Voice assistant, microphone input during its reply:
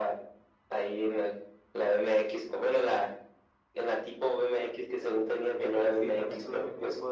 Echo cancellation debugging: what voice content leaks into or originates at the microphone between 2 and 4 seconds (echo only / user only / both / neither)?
echo only